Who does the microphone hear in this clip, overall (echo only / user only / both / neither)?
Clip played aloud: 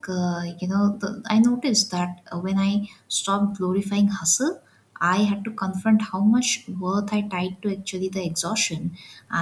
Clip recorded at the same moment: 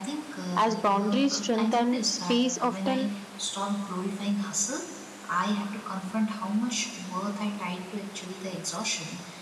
both